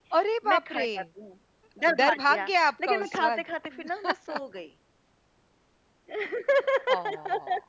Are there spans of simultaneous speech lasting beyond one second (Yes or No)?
Yes